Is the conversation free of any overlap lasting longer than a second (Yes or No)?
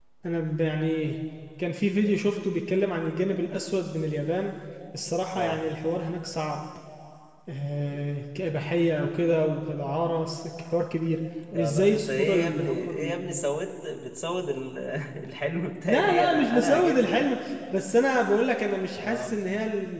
No